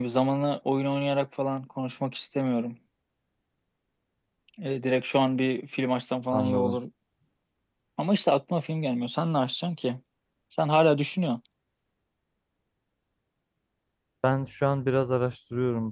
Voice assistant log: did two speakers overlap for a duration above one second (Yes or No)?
No